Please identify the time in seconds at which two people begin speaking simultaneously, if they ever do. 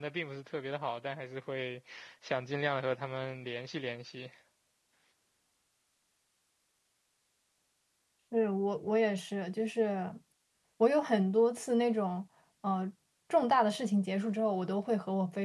none

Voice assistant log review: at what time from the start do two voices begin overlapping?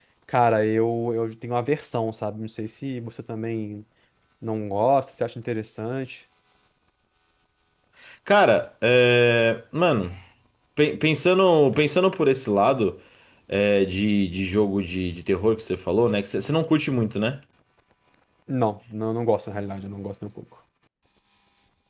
none

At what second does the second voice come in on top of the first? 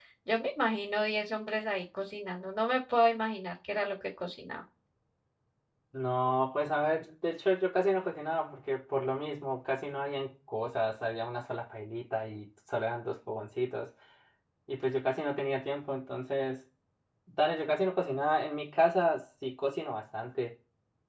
none

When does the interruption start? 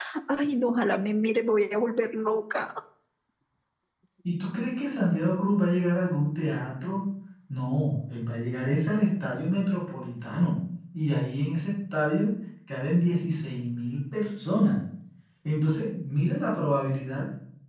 none

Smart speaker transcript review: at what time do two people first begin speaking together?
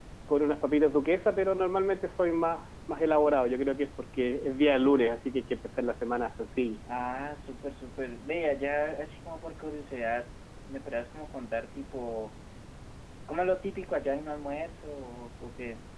none

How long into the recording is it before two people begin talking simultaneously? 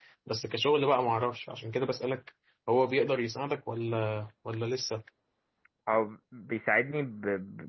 none

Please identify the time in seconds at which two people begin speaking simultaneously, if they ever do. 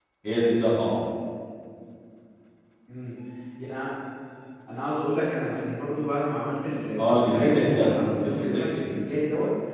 7.0 s

